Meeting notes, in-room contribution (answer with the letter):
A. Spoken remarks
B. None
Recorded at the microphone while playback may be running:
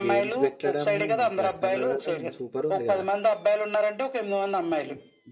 A